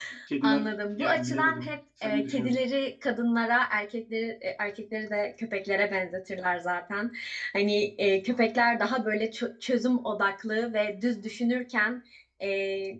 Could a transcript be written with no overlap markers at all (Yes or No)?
No